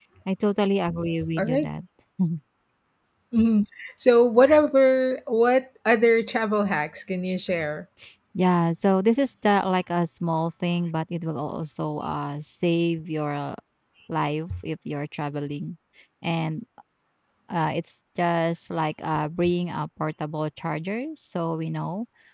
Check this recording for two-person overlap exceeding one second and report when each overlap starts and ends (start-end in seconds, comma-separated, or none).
none